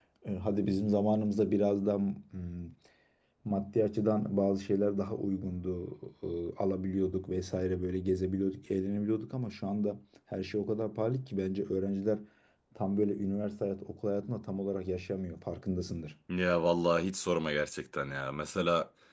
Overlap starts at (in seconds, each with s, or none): none